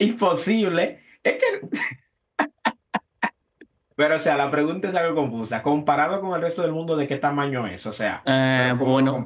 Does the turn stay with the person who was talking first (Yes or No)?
No